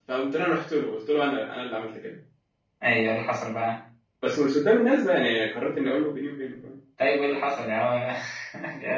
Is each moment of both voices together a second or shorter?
Yes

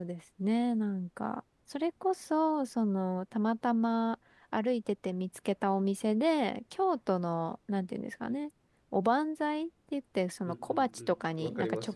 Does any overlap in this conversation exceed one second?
Yes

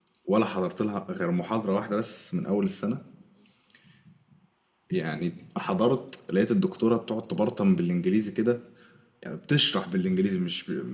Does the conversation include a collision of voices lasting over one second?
No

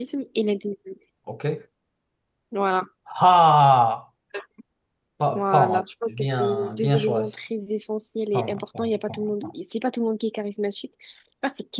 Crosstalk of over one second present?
Yes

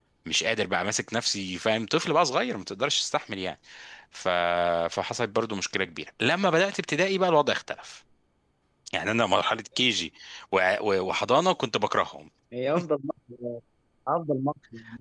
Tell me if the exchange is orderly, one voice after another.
Yes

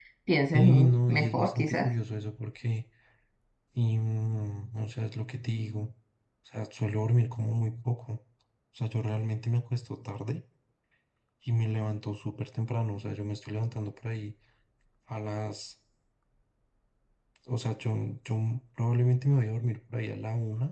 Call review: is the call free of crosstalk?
No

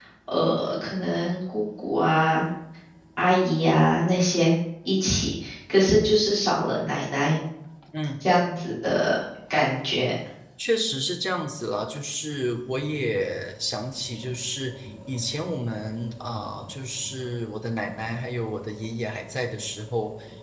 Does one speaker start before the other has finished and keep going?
No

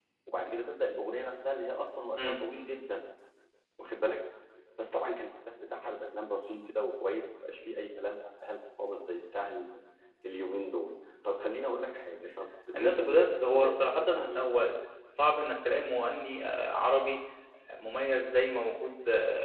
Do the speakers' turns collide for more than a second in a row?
Yes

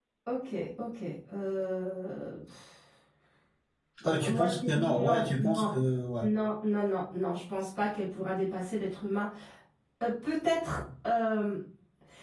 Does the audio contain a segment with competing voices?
Yes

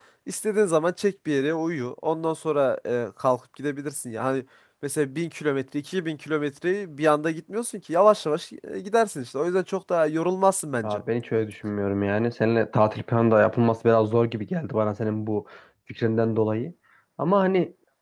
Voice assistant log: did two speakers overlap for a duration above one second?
No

